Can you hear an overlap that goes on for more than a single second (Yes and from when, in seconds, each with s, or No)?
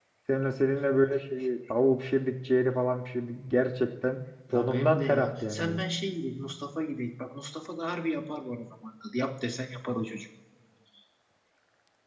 Yes, from 4.5 s